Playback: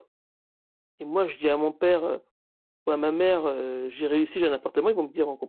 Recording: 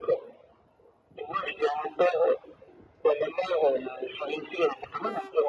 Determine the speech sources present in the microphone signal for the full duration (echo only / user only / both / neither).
echo only